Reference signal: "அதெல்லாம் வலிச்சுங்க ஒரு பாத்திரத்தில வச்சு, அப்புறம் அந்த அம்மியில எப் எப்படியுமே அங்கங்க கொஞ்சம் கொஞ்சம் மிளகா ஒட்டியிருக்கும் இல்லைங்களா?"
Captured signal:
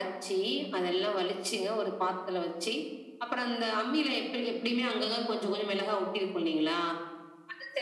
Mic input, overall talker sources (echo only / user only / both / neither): echo only